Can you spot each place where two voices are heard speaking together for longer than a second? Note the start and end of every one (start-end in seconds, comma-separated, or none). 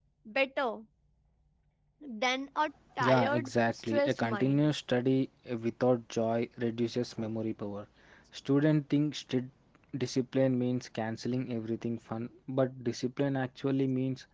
3.0-4.7